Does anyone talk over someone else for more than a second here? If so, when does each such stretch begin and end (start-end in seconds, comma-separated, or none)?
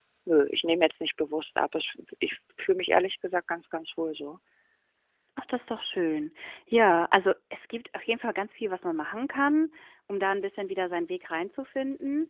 none